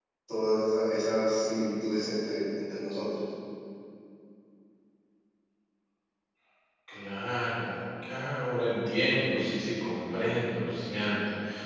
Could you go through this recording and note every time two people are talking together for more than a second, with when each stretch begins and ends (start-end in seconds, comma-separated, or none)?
none